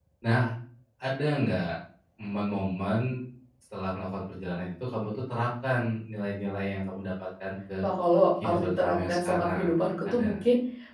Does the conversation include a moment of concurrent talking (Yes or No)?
Yes